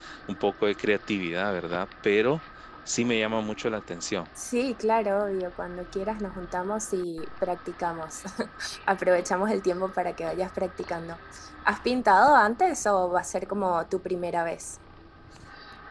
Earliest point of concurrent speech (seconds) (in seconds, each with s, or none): none